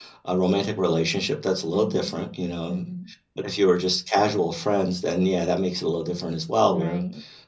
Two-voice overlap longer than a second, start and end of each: none

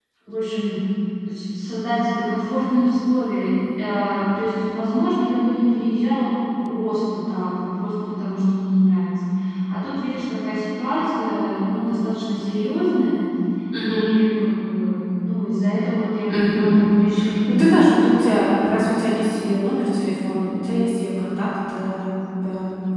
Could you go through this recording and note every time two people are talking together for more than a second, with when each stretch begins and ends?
none

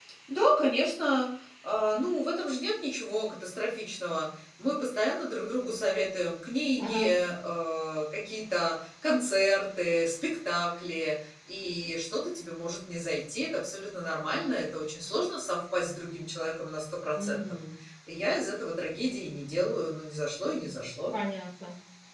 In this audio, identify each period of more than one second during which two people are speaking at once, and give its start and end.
none

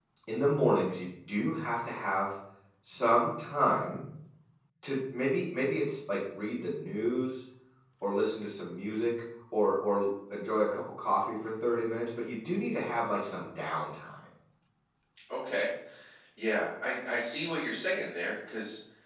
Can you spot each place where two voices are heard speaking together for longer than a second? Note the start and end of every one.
none

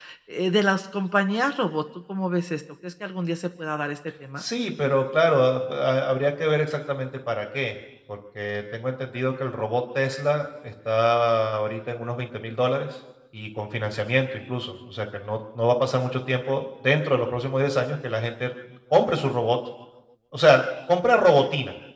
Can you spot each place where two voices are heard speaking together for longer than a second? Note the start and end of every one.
none

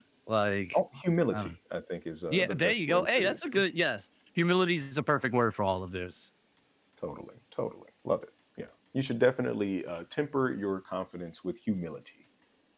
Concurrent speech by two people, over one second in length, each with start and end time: 2.3-3.6

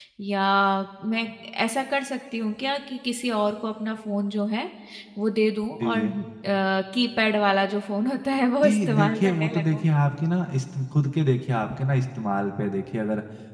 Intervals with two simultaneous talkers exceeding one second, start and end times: 8.6-9.8

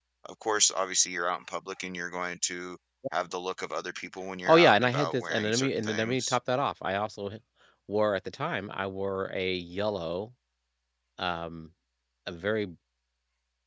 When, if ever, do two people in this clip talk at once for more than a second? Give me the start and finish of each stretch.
4.5-6.4

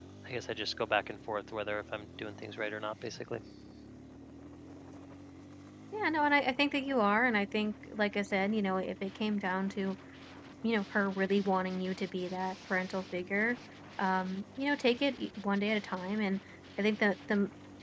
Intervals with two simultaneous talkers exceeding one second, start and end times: none

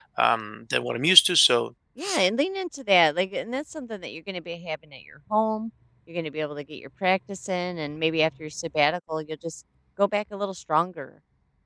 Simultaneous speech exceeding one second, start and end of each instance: none

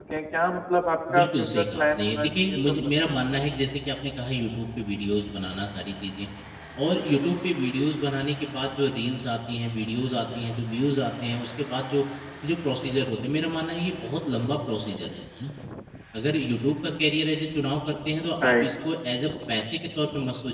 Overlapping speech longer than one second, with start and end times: 1.1-3.1

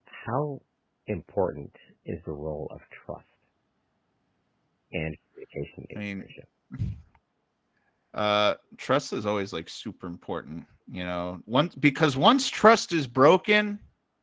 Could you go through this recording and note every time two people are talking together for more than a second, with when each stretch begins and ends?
none

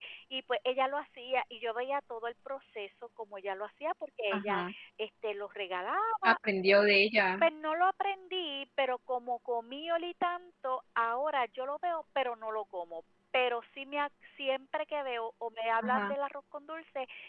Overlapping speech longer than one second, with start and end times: none

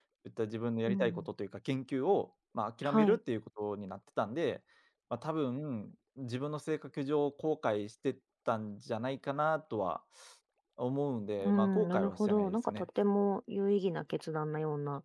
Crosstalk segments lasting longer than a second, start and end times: 11.4-12.9

